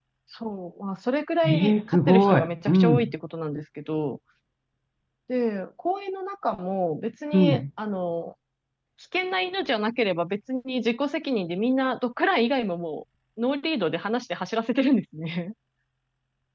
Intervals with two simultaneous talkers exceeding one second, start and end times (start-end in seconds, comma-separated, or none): 1.4-3.1